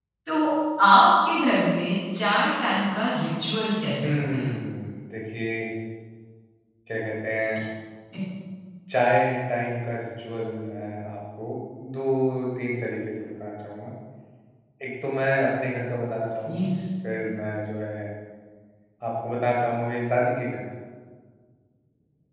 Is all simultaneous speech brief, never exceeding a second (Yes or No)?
Yes